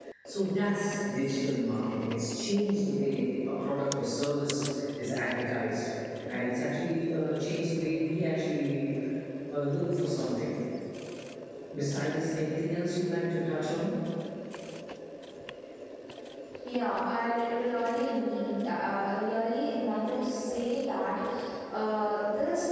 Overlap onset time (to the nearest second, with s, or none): none